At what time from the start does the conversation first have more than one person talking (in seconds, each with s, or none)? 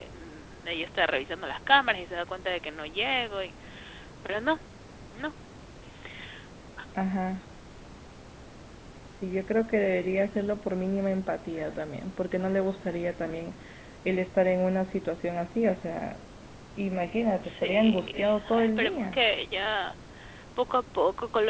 17.4 s